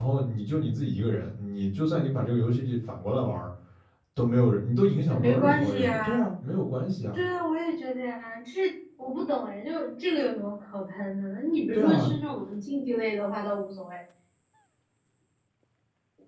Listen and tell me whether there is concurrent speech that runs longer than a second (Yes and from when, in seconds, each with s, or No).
Yes, from 5.1 s